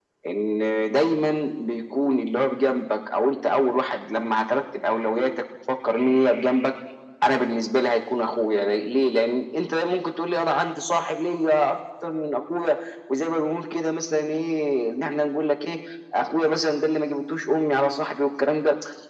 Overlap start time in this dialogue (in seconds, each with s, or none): none